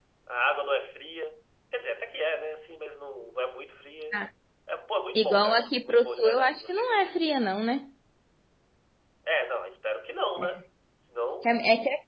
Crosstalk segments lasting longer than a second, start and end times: 5.2-7.3

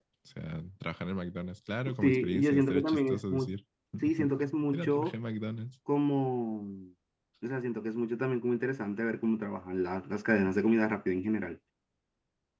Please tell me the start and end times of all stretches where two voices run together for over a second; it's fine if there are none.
2.0-3.5

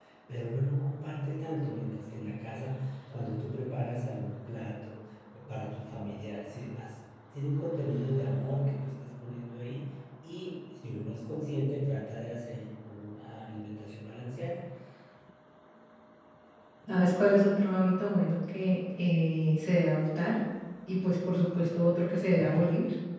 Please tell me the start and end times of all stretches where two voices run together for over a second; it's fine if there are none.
none

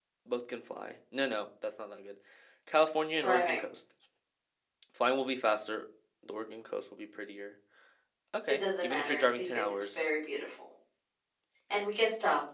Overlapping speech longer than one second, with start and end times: 8.5-10.0

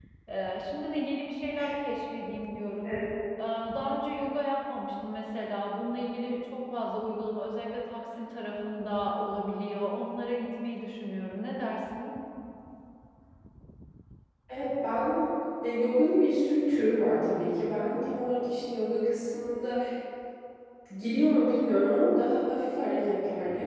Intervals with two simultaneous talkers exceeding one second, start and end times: none

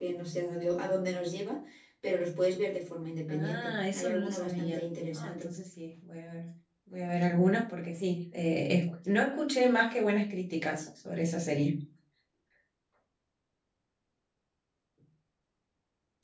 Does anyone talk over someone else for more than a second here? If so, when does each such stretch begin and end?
3.3-5.5

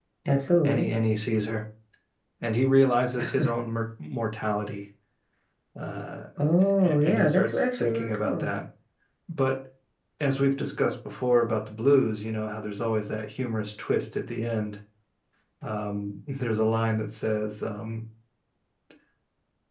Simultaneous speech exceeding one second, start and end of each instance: 6.8-8.5

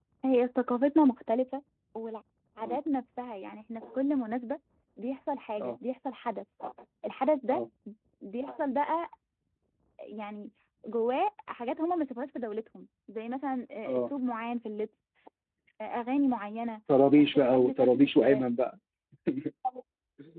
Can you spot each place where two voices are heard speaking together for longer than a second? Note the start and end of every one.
17.2-18.4

